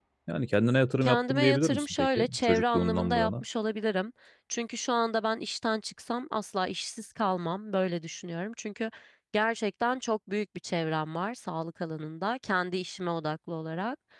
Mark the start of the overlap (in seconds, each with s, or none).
1.0 s